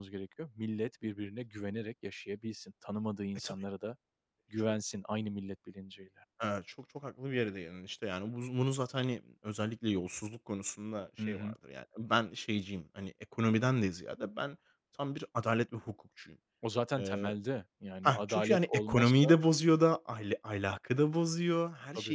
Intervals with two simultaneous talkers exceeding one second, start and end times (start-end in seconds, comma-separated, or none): 18.0-19.3